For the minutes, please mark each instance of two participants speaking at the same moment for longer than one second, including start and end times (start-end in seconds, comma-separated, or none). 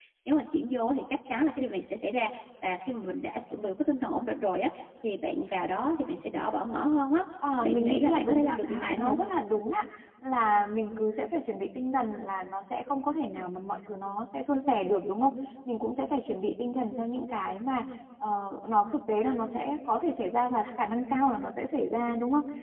7.6-9.2